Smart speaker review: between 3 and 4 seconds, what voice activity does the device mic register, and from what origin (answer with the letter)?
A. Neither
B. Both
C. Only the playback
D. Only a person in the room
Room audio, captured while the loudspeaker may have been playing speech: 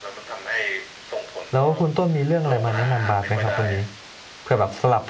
B